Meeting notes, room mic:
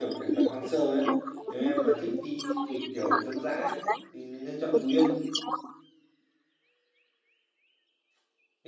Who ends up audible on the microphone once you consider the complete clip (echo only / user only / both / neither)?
both